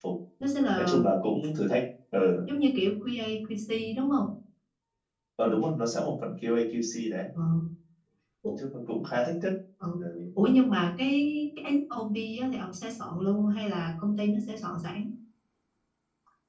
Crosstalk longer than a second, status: none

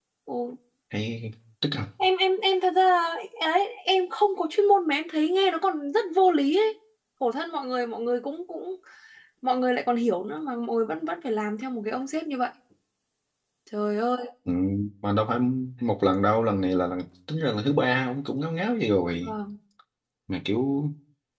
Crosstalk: none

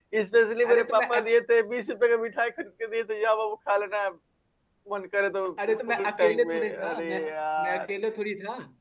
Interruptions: present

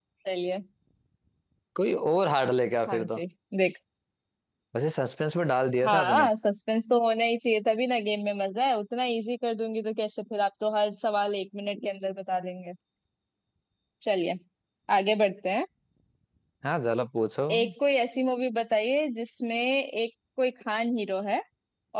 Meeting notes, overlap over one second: none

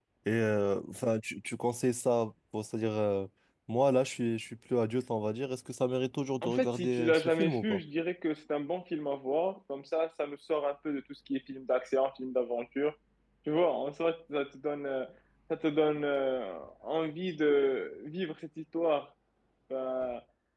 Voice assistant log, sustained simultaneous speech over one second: present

